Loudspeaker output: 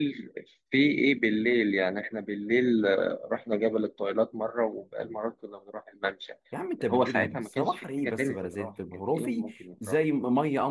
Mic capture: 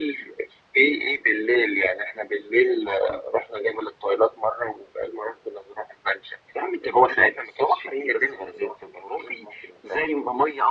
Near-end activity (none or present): none